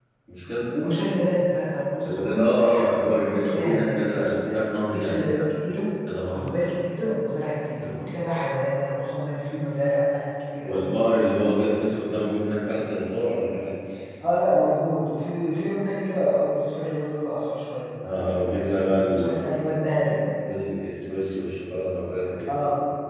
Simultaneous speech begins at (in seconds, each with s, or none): 2.0 s